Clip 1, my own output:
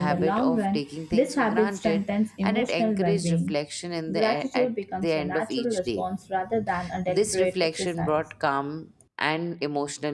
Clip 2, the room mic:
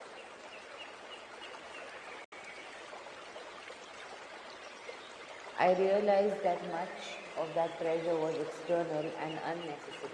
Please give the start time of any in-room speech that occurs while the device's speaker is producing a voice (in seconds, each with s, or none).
5.5 s